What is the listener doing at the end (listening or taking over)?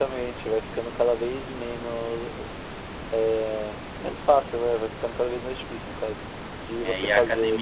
taking over